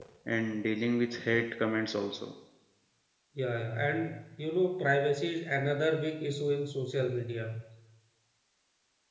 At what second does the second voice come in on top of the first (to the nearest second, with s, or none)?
none